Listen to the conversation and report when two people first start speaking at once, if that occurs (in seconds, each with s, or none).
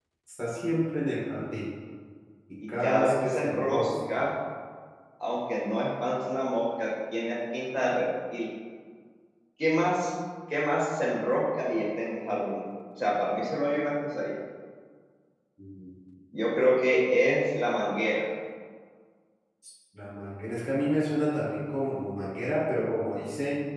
2.8 s